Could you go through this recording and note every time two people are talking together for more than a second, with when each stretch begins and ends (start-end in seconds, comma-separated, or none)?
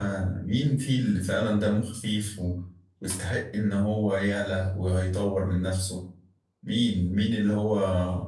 none